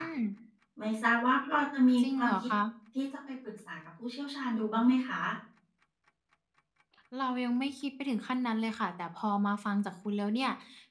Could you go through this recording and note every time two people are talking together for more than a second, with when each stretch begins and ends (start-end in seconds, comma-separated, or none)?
none